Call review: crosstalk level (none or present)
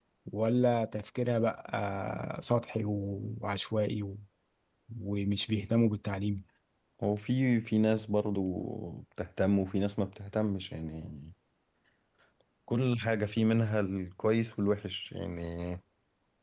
none